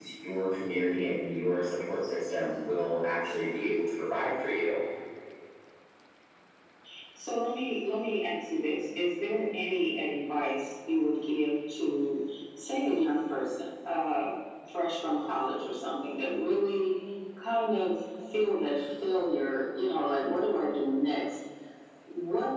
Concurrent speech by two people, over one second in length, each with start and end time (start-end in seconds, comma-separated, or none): none